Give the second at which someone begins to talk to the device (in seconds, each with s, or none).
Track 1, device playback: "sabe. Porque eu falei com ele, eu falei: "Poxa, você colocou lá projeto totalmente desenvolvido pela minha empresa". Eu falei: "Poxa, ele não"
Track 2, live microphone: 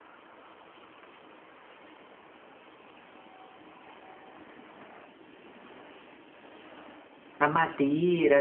7.4 s